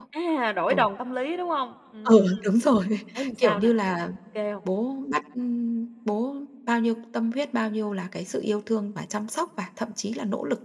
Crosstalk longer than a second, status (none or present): none